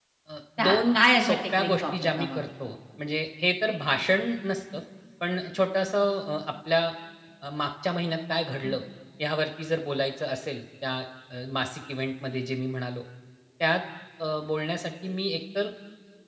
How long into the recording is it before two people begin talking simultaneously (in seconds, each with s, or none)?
0.6 s